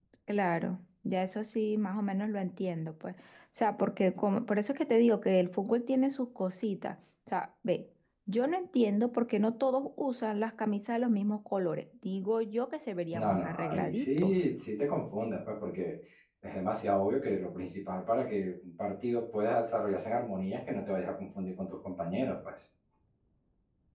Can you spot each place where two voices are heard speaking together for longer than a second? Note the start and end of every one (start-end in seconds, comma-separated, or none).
13.1-14.3